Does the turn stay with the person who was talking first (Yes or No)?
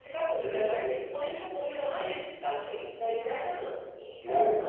No